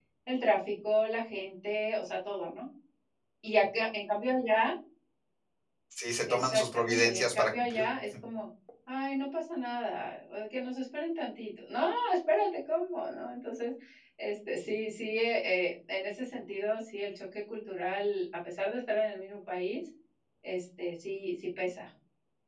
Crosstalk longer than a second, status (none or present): present